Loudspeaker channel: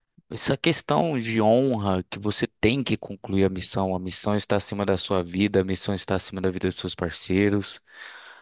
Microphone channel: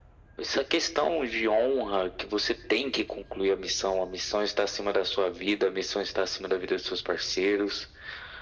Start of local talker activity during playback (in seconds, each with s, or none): none